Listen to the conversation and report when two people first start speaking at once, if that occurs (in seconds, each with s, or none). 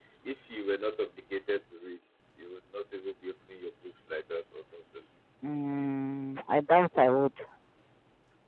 none